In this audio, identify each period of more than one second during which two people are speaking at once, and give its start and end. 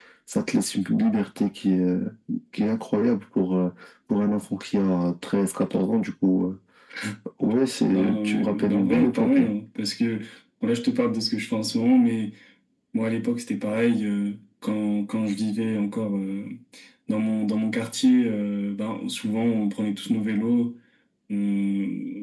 7.9-9.5

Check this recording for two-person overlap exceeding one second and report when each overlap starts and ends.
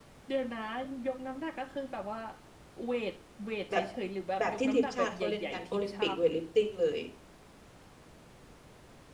4.4-6.4

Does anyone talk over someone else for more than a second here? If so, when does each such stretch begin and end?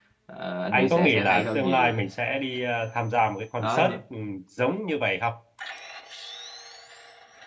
0.7-1.9

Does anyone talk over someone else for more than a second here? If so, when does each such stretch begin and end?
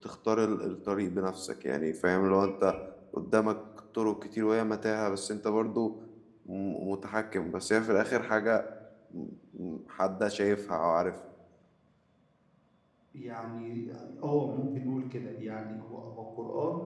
none

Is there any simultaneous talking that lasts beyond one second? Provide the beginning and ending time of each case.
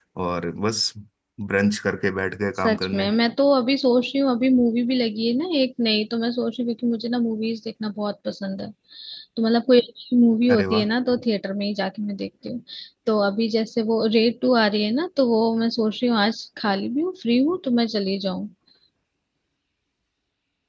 none

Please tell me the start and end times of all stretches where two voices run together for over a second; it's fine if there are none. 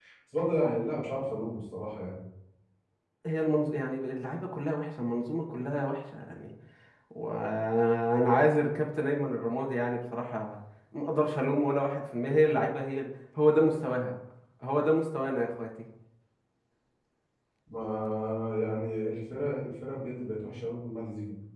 none

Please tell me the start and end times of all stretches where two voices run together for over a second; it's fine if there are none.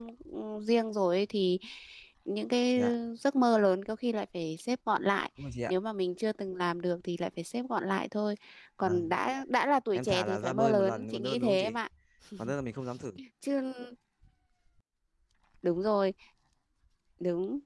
9.9-11.8

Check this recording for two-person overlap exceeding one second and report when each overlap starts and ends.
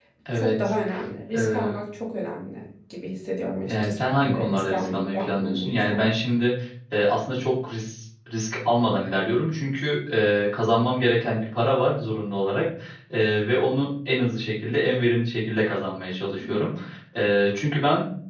3.6-6.1

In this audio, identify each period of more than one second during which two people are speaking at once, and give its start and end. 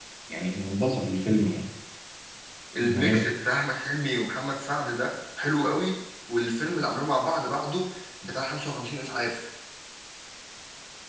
none

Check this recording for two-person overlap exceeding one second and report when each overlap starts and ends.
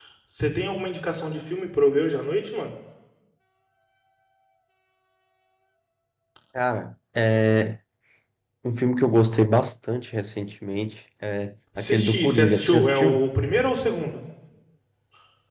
11.8-13.3

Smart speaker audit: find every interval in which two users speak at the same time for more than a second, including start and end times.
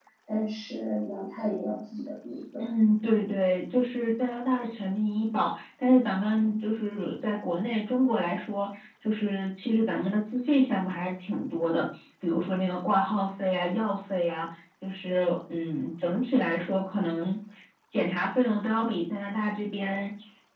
none

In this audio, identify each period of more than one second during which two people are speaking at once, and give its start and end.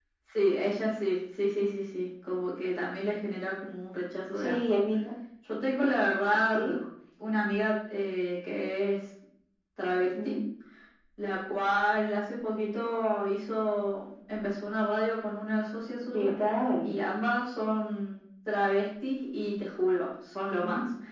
none

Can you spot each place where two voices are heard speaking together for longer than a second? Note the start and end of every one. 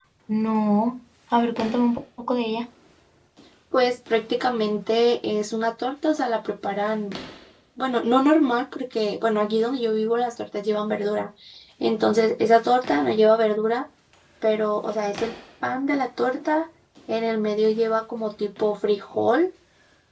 none

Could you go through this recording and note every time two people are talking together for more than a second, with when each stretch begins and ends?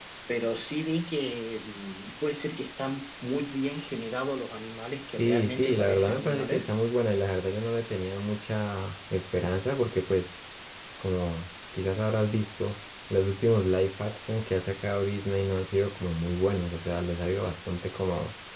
5.1-6.8

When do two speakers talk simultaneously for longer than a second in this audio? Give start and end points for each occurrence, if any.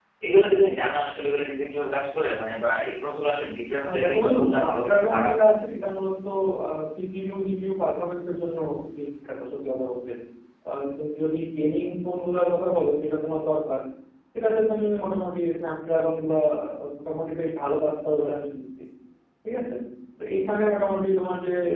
3.8-5.3

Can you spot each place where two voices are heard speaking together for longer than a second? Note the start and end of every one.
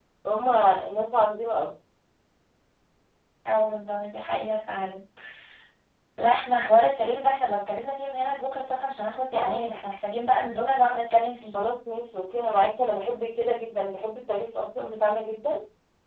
none

